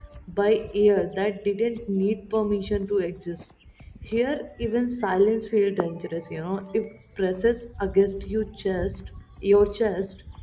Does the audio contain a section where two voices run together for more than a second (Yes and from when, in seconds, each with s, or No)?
No